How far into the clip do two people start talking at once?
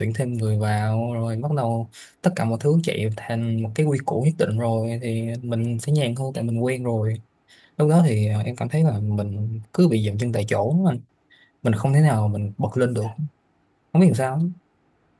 none

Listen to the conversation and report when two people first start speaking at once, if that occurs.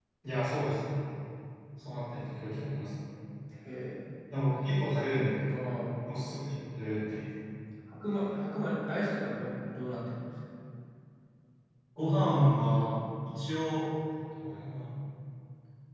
none

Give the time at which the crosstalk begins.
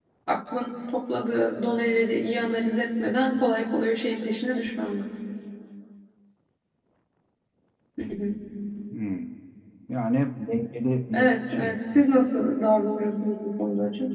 11.1 s

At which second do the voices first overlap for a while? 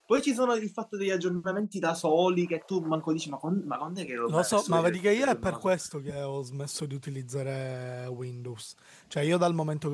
4.3 s

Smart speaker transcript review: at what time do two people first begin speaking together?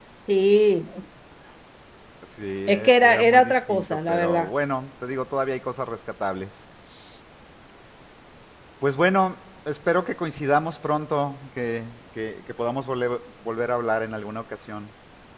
2.7 s

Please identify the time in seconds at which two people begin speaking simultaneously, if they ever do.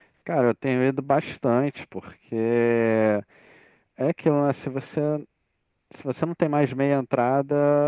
none

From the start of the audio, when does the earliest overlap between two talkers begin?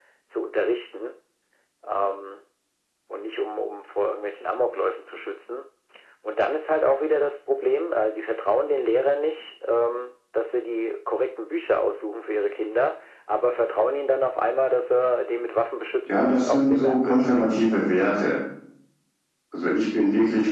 16.1 s

